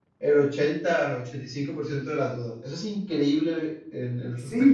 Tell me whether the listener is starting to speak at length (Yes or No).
Yes